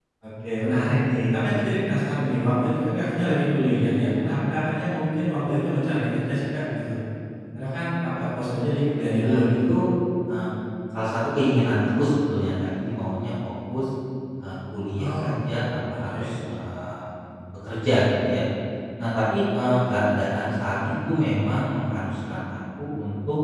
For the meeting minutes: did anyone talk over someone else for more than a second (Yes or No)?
No